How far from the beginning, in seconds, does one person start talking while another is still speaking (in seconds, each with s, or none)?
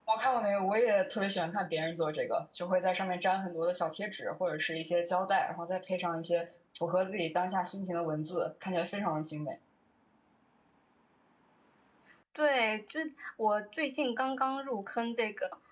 none